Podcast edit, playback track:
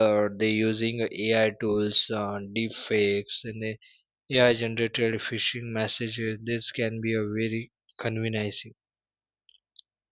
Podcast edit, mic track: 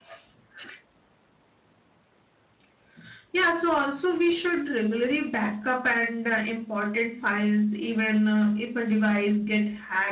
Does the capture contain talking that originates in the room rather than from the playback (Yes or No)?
Yes